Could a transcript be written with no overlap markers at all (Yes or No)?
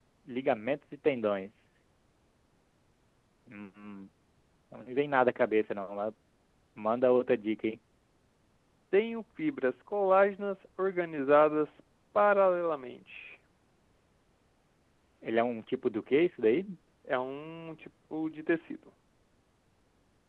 Yes